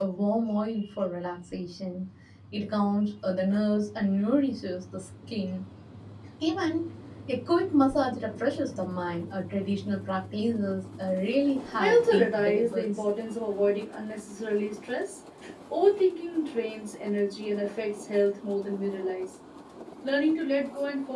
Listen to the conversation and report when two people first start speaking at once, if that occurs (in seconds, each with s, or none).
11.8 s